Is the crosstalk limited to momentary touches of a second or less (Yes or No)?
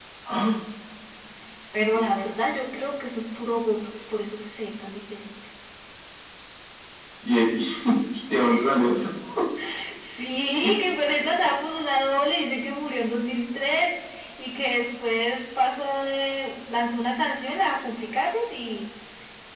Yes